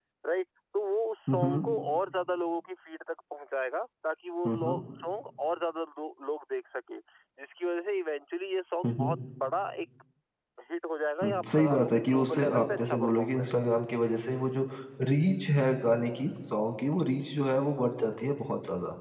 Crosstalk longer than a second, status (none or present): present